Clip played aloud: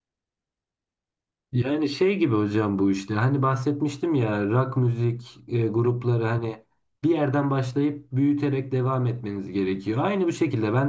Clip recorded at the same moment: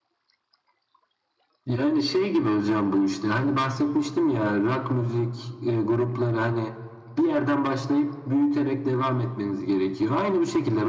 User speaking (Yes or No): No